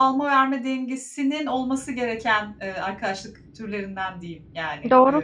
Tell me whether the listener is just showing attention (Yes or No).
No